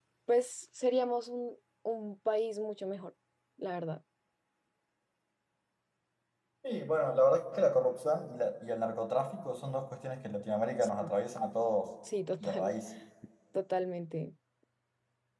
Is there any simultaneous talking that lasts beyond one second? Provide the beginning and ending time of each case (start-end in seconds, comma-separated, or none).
none